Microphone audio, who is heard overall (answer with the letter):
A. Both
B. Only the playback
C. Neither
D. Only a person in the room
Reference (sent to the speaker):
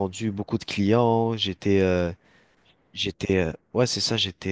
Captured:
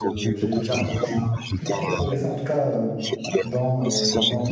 A